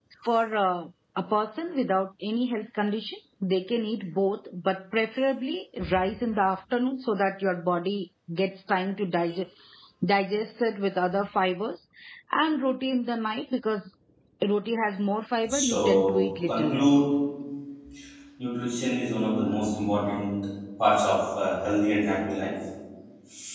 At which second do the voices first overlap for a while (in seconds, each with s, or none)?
15.4 s